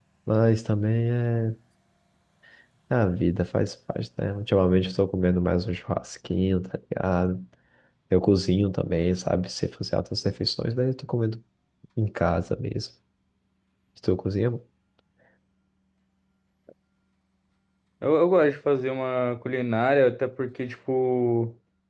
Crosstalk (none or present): none